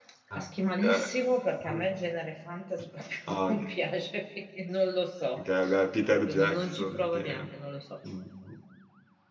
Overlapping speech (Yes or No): Yes